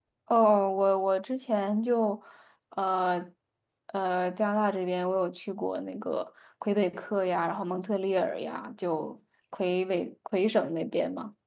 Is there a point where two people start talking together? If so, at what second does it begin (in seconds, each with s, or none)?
none